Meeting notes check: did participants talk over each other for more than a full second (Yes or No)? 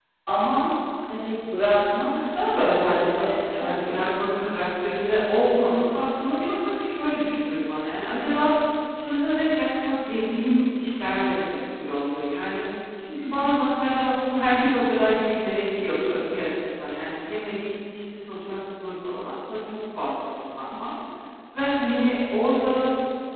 Yes